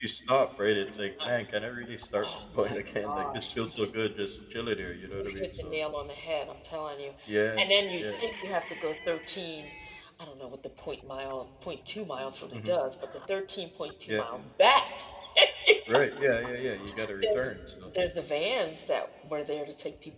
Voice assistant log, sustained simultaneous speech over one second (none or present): present